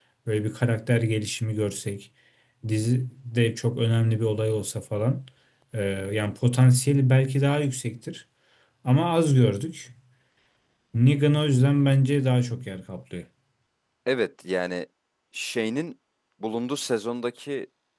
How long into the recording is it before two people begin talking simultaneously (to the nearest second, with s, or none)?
none